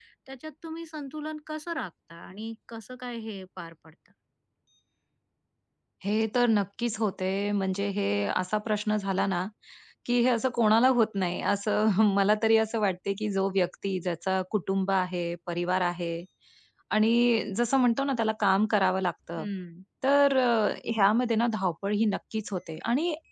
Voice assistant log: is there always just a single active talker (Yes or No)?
Yes